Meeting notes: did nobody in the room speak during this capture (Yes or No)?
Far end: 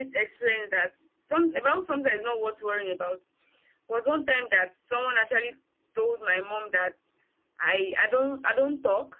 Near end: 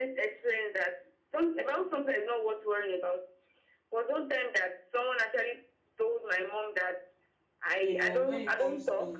No